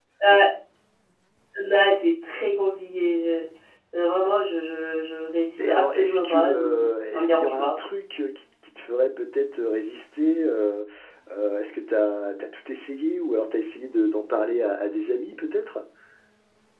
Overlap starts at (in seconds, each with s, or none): 5.6 s